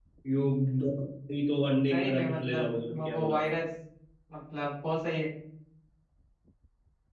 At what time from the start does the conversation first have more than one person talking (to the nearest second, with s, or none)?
2 s